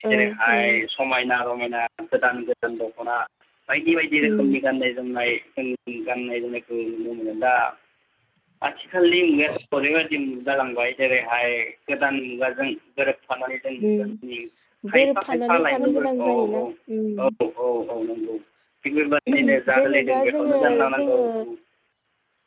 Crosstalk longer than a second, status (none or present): present